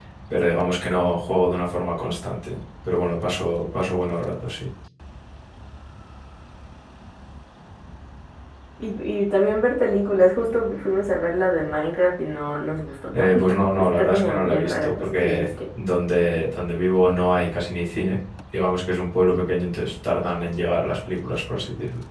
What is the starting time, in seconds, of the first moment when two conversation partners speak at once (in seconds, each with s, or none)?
13.1 s